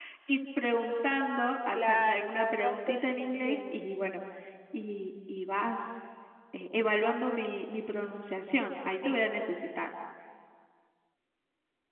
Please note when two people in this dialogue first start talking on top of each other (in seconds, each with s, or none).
1.7 s